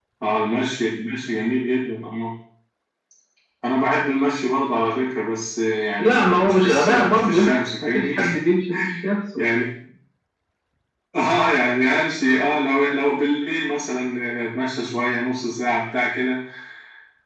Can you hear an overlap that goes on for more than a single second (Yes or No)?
Yes